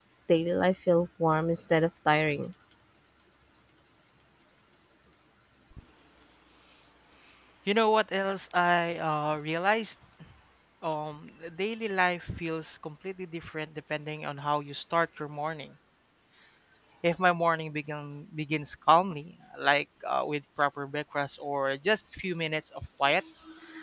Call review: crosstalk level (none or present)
none